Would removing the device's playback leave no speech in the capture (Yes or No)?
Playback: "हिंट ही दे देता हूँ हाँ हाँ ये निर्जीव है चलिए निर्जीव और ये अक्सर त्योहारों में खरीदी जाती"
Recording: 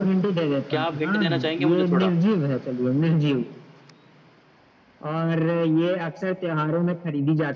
No